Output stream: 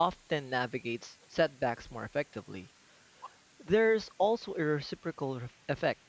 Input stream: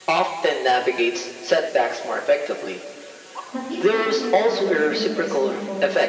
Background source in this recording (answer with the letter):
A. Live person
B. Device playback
A